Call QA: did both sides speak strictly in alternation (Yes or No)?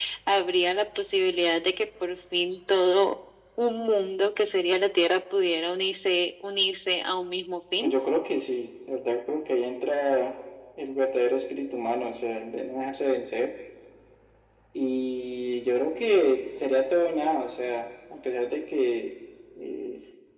Yes